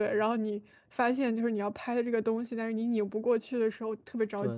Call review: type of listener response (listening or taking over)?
taking over